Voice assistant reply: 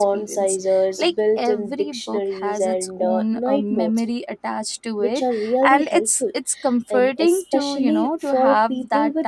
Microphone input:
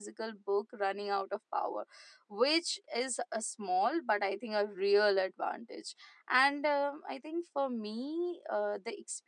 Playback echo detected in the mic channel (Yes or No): No